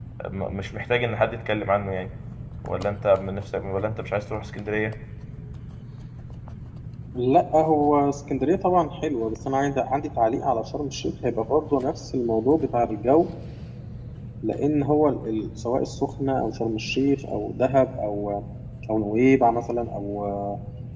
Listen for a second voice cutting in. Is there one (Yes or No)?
No